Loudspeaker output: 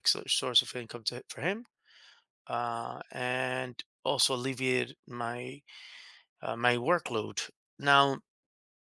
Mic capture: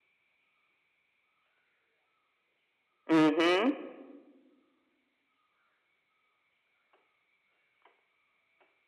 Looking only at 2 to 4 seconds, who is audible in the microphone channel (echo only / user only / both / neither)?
user only